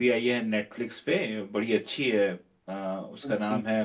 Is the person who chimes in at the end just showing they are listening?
Yes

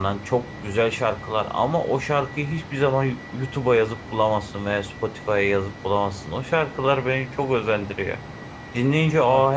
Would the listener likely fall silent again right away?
Yes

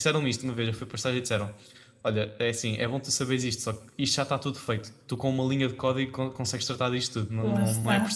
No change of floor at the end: Yes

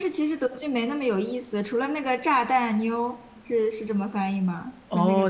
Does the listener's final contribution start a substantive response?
Yes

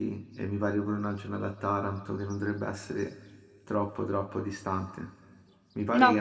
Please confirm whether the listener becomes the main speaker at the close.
No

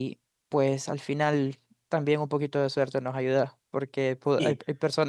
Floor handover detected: No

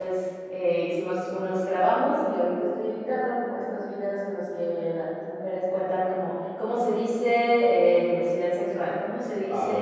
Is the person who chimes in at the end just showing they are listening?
Yes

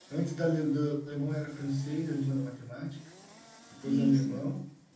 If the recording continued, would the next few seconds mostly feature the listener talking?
No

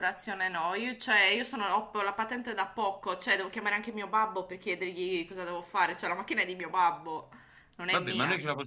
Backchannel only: No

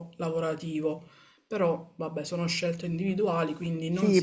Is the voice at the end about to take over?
Yes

